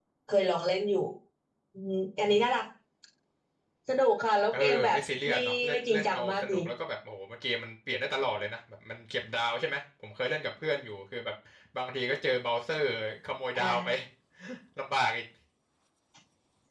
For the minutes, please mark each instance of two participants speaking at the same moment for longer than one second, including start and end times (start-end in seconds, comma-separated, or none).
4.5-6.5